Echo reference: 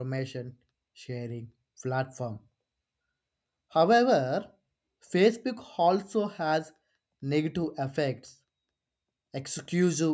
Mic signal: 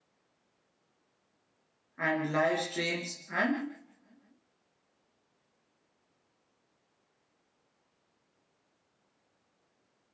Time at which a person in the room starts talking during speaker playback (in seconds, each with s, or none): 2.0 s